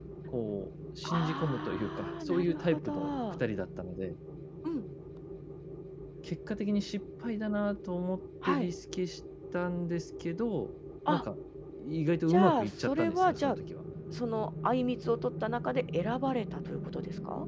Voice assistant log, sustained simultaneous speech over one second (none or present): present